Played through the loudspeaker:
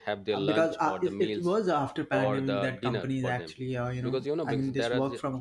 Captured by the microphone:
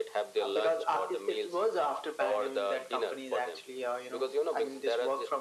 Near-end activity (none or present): none